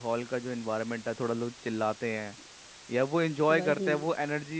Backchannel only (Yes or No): Yes